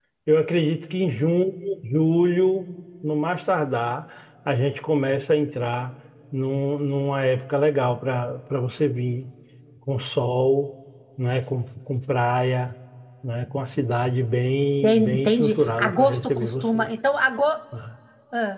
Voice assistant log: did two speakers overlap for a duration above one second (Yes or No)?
Yes